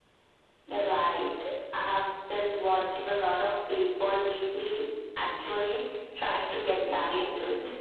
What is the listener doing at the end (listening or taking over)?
taking over